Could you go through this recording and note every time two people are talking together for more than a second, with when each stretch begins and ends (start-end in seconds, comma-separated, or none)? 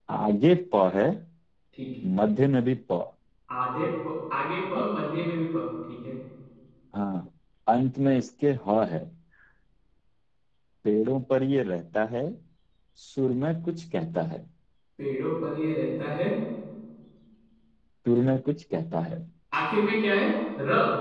none